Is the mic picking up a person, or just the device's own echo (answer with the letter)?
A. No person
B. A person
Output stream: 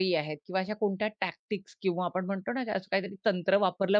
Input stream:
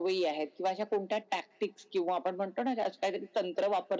A